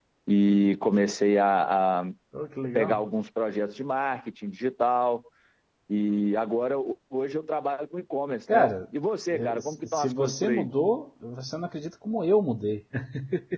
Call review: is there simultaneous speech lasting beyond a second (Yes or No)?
Yes